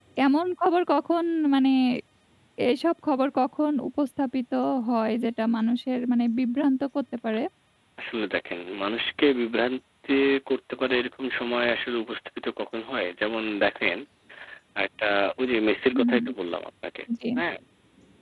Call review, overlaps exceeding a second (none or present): none